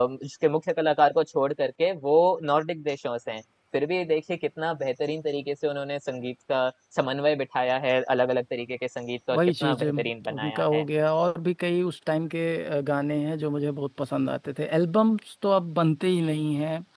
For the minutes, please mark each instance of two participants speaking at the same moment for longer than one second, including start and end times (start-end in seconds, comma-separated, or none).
9.3-10.8